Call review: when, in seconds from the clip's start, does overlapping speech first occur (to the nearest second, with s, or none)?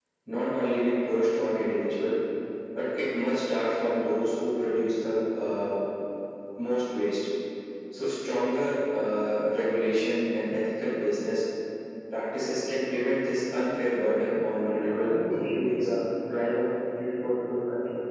15 s